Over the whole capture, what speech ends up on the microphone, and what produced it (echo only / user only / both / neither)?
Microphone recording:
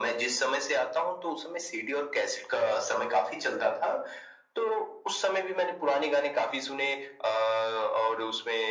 echo only